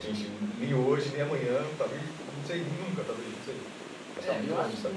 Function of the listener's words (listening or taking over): taking over